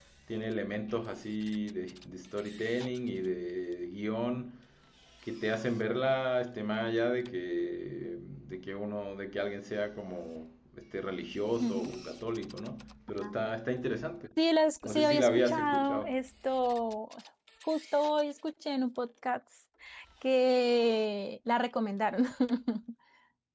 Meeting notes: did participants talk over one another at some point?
Yes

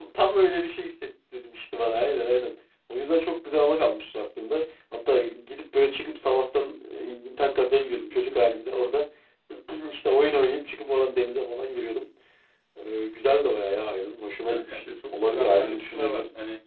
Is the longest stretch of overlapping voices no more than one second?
No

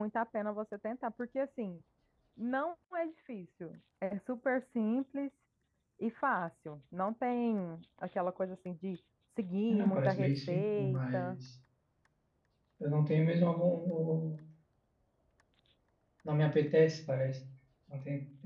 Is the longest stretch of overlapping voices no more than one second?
No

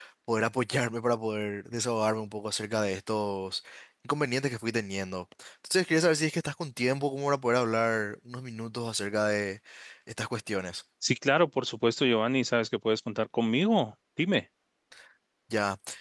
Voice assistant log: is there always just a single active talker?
Yes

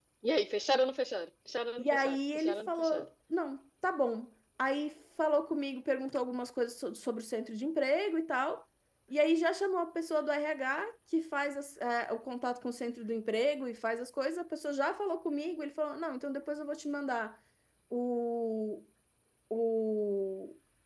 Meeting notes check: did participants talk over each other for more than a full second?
Yes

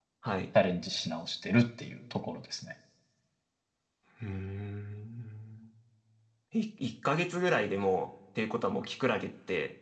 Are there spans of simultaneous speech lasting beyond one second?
No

